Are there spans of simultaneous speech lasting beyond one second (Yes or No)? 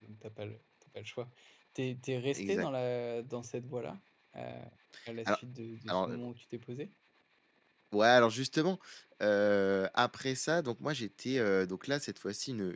No